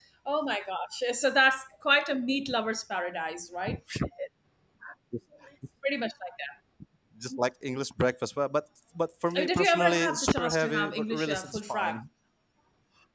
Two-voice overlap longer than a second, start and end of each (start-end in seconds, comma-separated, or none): 9.3-12.0